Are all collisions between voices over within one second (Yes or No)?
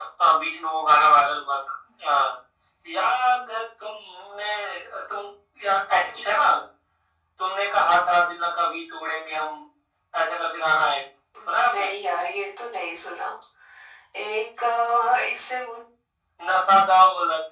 Yes